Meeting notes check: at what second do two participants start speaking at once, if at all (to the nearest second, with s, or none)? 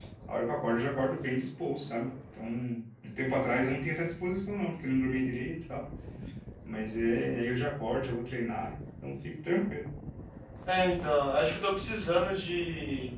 none